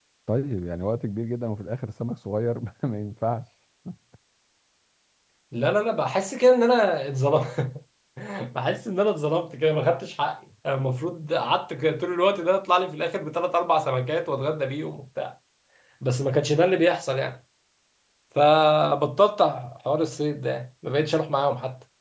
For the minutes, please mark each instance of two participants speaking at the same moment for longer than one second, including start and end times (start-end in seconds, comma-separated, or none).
none